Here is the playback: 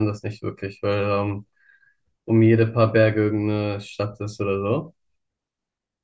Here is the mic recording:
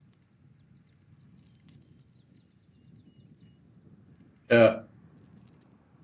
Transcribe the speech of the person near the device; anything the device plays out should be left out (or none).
Ja,